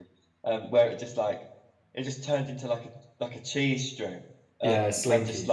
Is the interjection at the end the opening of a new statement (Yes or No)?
No